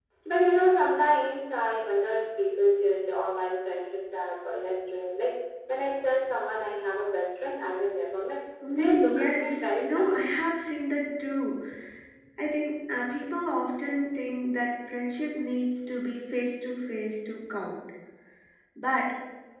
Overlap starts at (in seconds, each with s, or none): 8.6 s